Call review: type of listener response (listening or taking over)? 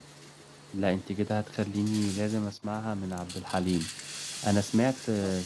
listening